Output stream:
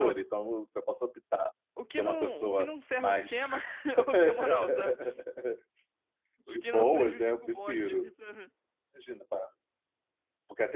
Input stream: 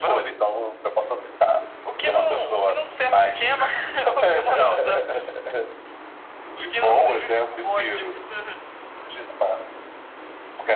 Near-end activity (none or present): none